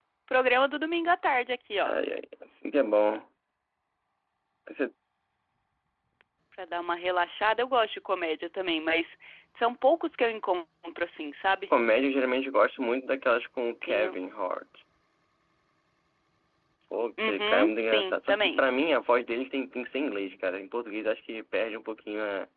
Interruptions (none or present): present